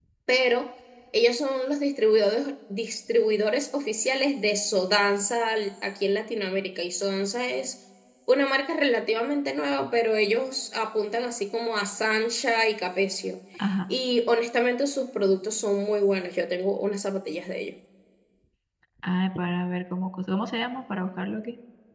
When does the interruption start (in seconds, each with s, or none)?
none